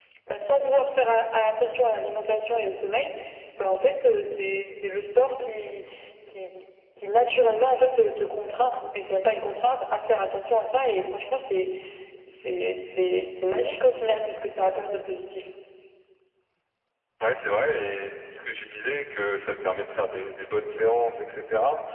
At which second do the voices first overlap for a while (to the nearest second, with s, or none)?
none